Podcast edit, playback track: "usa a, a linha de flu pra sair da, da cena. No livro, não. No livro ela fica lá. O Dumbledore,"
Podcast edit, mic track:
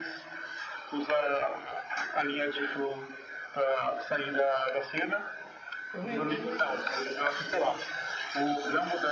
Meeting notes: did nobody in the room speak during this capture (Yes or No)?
No